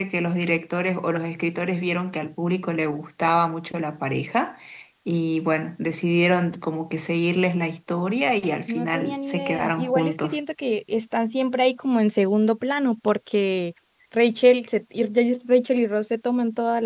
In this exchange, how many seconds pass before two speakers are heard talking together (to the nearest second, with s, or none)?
9 s